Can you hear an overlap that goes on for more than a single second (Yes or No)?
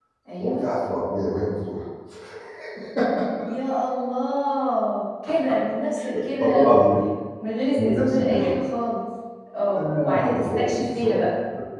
Yes